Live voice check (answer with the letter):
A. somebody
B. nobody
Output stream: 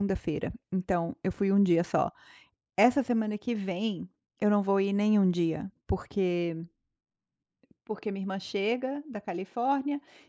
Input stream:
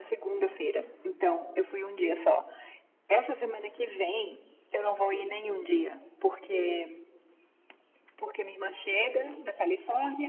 B